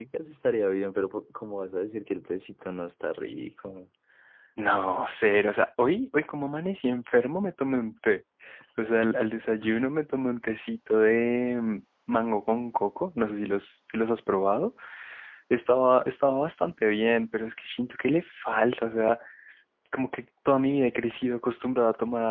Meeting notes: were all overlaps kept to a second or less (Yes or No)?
Yes